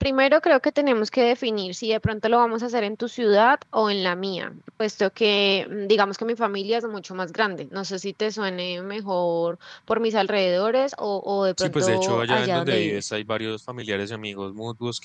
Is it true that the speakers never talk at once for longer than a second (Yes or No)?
No